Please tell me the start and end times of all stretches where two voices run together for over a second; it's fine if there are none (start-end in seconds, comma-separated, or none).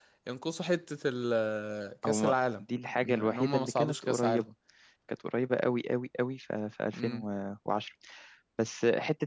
3.0-4.2